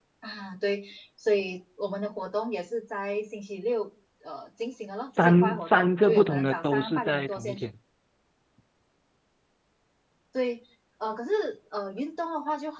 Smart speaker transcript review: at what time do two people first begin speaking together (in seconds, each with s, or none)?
5.1 s